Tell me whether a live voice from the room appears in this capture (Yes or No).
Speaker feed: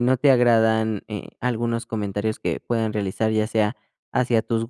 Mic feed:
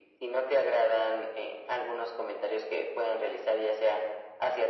No